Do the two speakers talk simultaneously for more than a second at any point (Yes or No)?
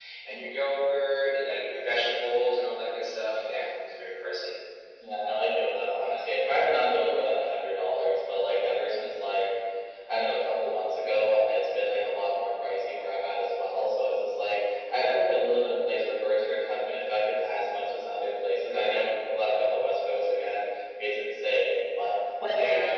No